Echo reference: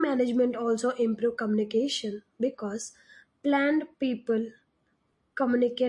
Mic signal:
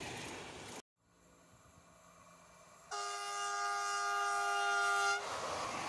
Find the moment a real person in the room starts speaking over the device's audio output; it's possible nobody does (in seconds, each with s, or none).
none